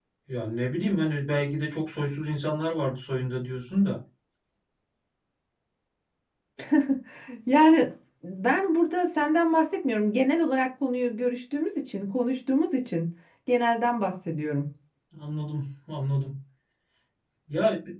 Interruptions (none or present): none